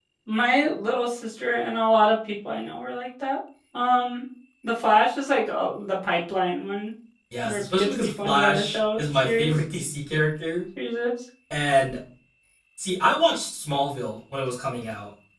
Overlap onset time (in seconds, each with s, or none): 7.4 s